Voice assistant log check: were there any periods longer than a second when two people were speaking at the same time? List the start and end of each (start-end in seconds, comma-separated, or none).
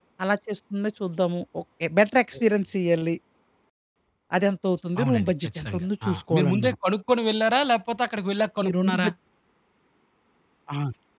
5.0-6.7